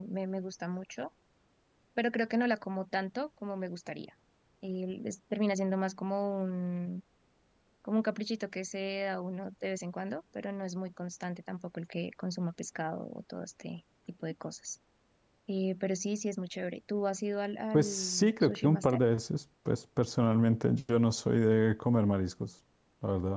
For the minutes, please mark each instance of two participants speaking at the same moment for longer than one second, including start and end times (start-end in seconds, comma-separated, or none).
17.7-19.0